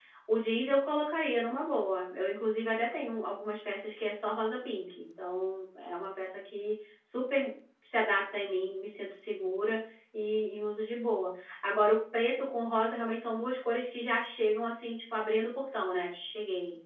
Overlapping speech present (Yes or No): No